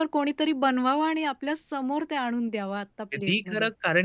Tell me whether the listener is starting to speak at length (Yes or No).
Yes